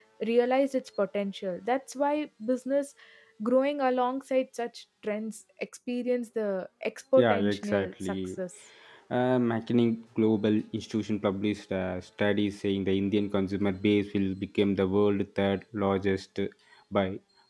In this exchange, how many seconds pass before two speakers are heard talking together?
7.2 s

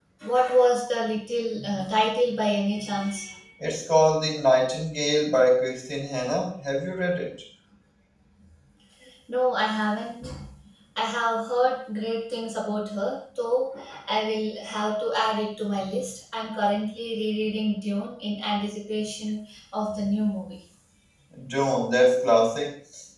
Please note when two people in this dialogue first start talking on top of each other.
none

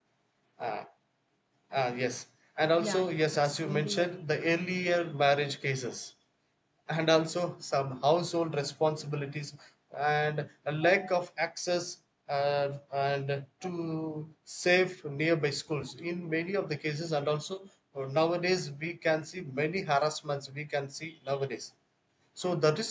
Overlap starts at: 2.8 s

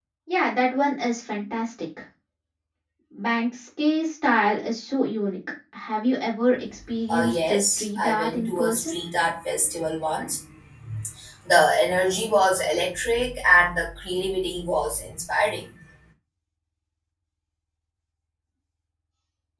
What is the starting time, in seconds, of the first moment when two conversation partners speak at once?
7.1 s

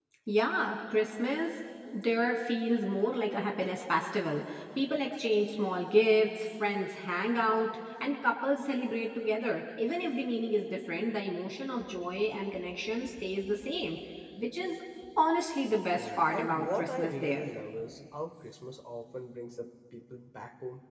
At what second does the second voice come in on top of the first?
16.0 s

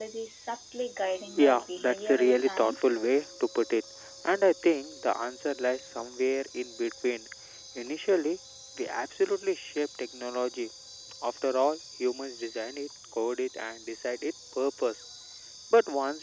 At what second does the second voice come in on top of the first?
1.3 s

